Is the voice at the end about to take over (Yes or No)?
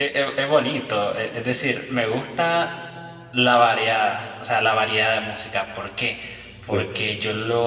No